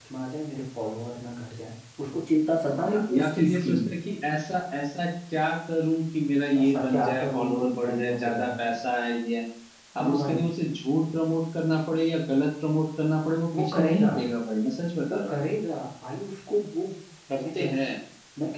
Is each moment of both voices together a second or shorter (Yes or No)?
No